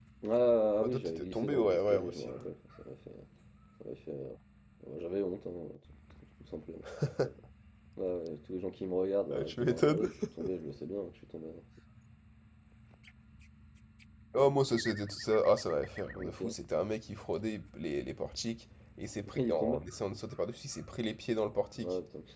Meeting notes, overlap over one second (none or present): present